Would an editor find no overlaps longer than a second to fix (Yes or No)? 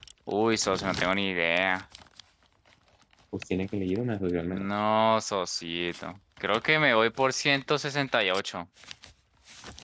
Yes